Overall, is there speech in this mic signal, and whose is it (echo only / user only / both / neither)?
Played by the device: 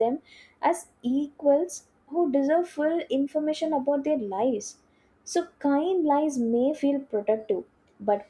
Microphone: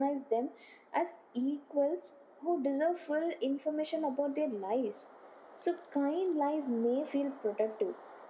echo only